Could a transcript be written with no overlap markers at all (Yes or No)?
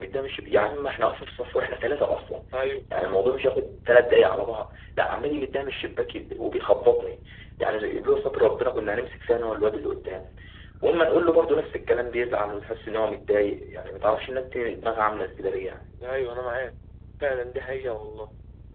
Yes